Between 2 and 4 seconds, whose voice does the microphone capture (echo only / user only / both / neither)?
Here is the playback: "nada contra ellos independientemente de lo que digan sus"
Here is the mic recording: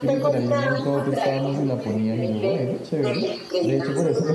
both